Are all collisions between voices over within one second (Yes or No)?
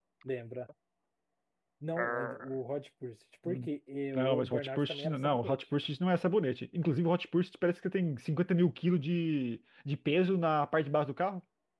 No